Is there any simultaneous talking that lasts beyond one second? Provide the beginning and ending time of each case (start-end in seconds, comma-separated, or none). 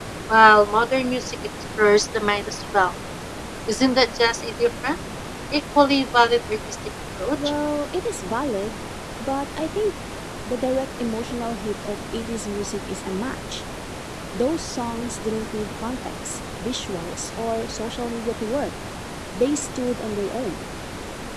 none